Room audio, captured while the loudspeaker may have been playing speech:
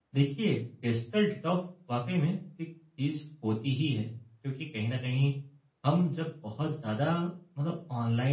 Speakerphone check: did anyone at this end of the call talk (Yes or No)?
Yes